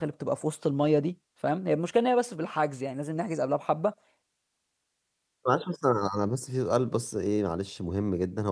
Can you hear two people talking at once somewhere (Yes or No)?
No